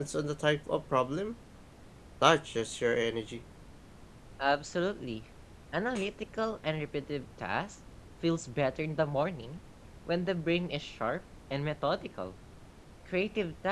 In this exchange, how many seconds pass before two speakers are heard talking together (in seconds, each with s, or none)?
none